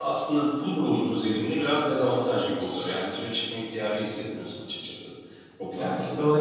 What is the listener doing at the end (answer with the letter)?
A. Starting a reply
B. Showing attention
A